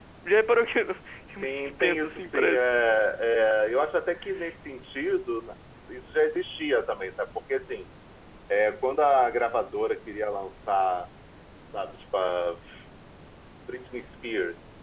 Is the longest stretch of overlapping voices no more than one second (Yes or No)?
No